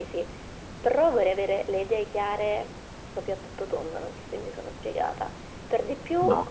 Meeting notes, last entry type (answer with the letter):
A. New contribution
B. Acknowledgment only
B